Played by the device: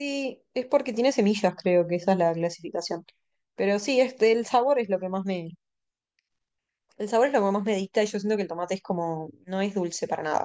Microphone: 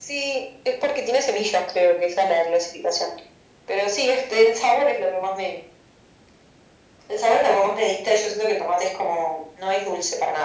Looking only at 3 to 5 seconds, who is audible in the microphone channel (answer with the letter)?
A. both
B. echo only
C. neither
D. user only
B